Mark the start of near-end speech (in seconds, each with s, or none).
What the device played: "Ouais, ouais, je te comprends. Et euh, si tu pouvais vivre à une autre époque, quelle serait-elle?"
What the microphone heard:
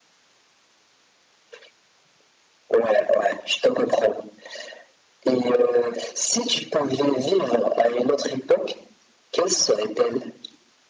none